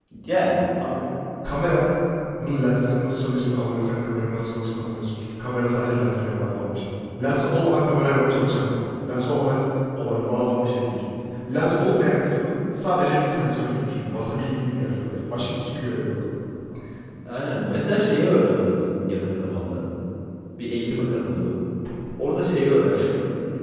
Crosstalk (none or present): none